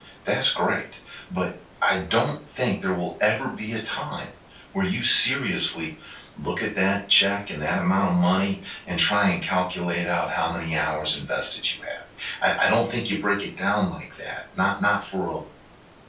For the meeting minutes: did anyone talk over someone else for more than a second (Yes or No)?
No